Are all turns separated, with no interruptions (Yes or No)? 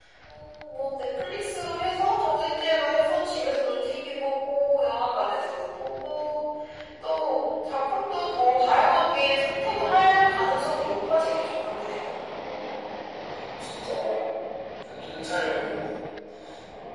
Yes